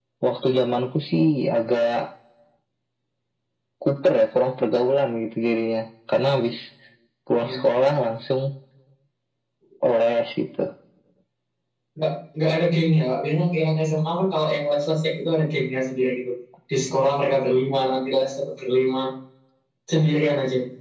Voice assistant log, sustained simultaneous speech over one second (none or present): none